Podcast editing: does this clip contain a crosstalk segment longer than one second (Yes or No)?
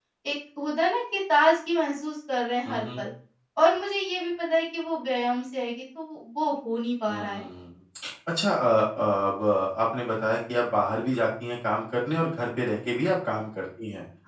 No